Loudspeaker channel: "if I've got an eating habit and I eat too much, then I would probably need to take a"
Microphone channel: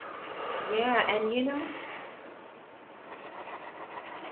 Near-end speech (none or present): present